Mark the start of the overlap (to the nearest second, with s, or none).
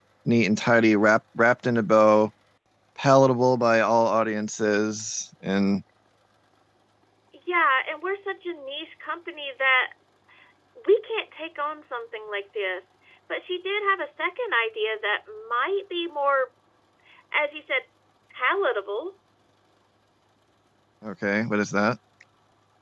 none